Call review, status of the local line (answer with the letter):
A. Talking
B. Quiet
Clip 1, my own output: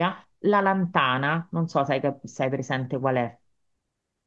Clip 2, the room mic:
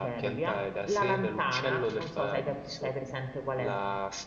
A